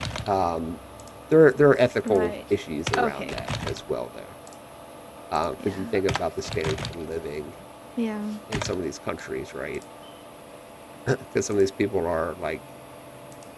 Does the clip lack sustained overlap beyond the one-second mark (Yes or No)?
Yes